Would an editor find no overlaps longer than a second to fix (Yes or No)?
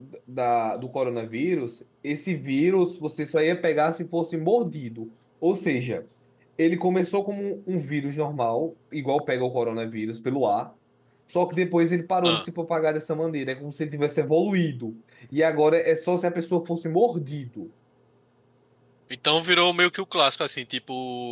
Yes